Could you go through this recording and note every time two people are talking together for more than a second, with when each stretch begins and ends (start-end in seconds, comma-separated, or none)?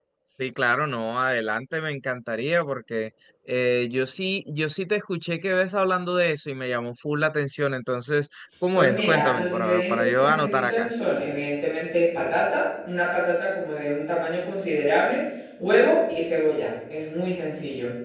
8.7-10.9